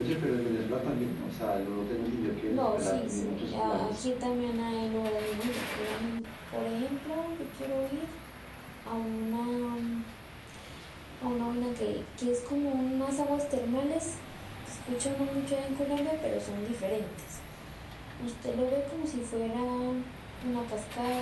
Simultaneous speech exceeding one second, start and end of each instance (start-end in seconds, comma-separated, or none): 2.5-4.0